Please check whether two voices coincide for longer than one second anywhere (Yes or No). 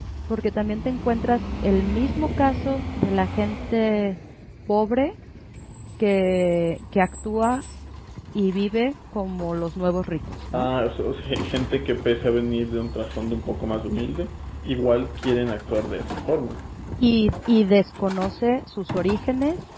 No